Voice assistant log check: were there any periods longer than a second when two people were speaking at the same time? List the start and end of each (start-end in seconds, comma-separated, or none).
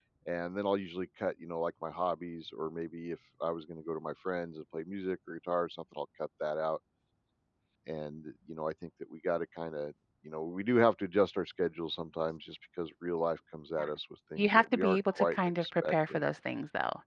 14.4-16.2